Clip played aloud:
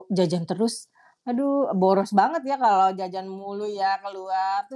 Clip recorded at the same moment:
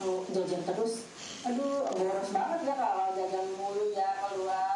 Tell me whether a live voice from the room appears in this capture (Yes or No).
No